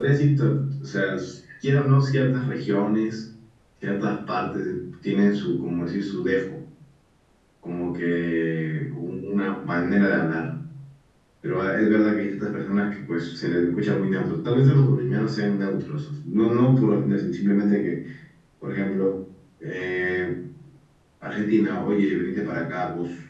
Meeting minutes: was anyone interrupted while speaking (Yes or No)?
No